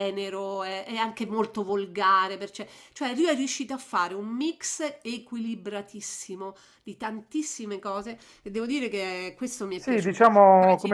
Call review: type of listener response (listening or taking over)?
taking over